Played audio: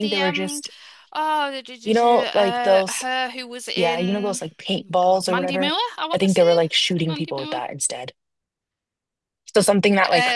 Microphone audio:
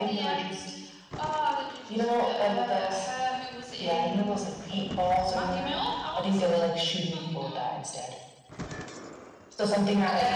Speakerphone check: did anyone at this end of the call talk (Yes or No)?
No